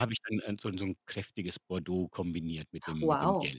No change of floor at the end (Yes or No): No